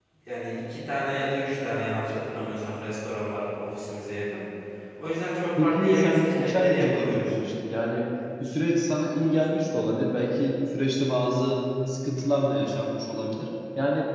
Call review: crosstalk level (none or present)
present